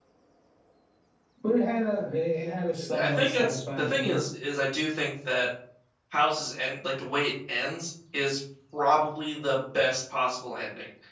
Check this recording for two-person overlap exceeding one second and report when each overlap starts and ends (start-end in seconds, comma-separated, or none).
3.0-4.2